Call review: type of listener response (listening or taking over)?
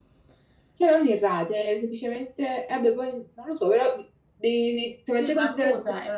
taking over